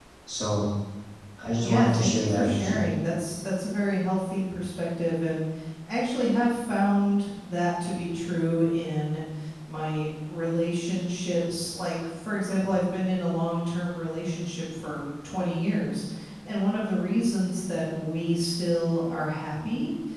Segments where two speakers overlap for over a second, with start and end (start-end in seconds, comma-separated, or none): 1.6-2.8